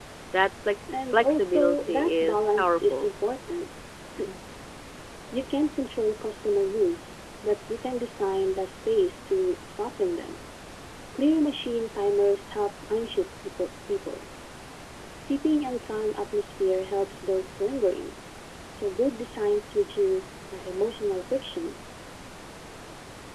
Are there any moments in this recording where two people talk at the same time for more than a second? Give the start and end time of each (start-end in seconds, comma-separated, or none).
1.1-3.1